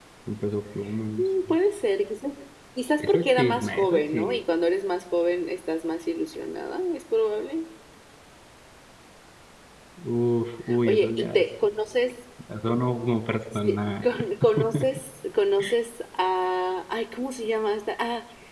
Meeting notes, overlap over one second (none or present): present